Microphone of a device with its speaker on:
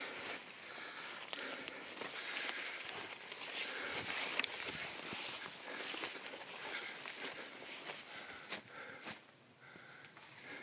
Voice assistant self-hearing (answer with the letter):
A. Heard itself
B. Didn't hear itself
B